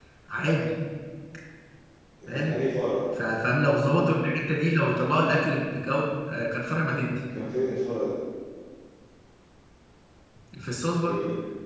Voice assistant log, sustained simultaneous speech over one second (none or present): none